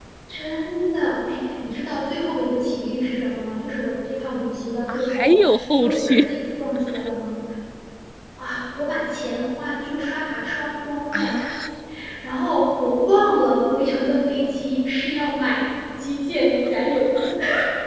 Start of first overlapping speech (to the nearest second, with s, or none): 5 s